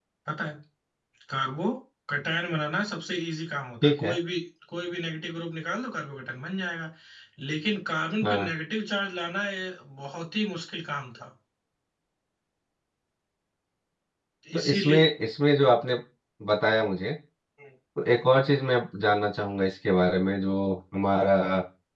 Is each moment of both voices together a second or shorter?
Yes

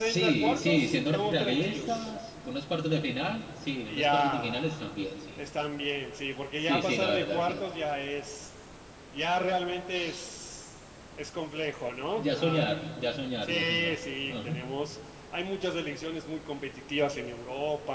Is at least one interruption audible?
Yes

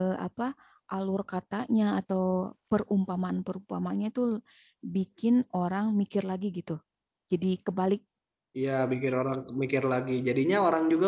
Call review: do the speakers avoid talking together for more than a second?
Yes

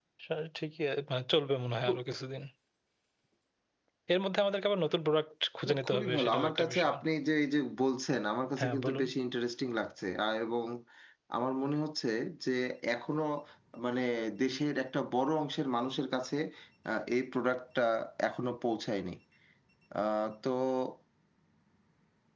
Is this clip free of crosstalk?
No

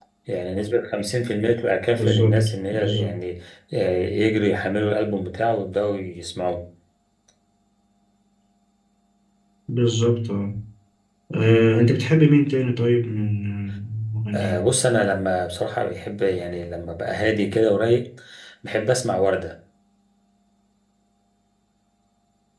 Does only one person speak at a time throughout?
No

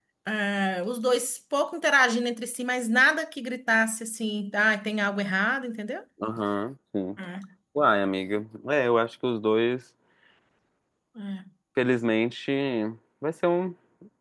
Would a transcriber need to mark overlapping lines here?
No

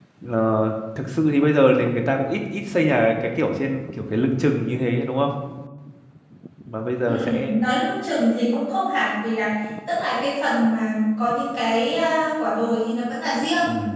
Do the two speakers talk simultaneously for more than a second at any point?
No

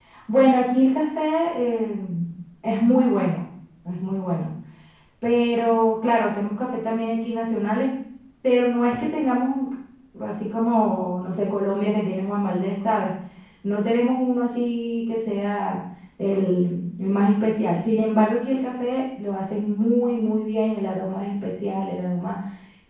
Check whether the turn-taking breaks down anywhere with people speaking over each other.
No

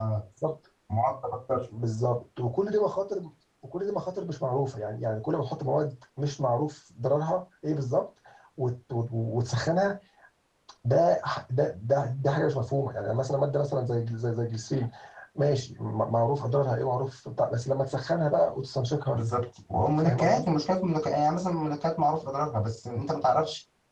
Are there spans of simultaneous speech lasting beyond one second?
No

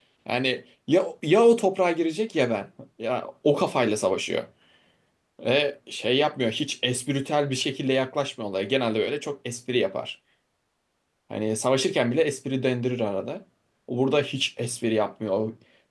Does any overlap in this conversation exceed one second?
No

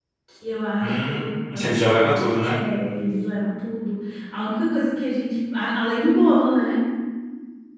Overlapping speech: Yes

